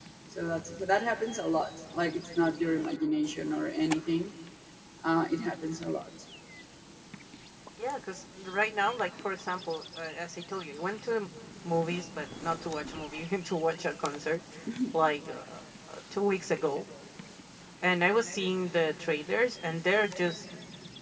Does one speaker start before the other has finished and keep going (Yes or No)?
No